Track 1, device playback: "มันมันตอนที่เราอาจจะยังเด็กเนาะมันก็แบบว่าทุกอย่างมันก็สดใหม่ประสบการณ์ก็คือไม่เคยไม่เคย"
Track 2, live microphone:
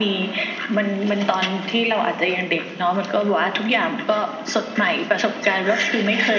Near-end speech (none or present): none